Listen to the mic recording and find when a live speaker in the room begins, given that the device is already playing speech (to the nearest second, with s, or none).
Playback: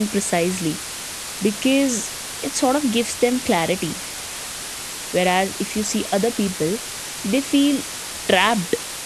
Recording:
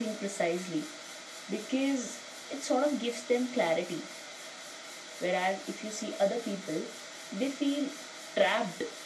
none